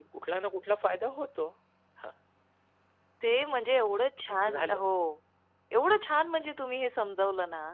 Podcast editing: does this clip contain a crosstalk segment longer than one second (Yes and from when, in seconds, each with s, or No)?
No